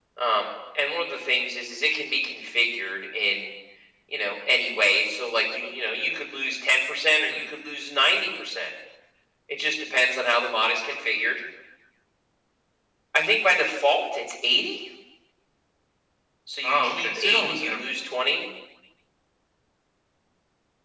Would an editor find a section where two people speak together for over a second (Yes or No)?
Yes